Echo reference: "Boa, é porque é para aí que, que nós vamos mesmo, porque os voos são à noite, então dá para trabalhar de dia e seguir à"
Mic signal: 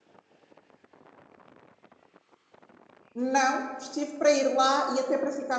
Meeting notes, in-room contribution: present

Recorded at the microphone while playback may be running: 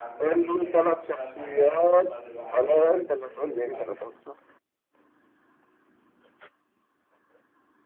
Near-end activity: present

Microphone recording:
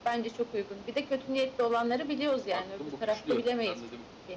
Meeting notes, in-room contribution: present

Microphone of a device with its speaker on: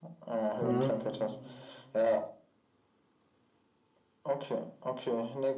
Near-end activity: present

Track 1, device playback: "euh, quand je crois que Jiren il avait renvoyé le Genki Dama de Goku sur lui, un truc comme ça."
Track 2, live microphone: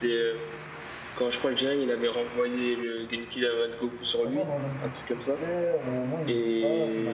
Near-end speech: present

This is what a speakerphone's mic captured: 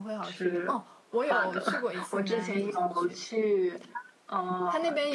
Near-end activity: present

